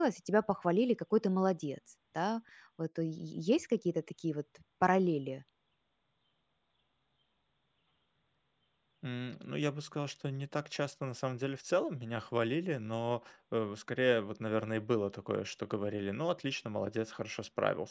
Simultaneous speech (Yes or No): No